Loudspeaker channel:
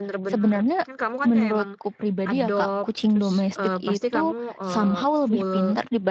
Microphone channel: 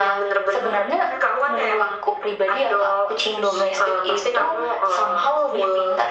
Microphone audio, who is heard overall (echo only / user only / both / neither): echo only